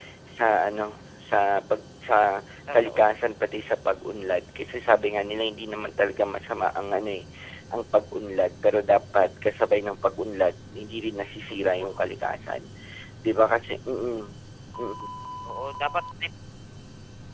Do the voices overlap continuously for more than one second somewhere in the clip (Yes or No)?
No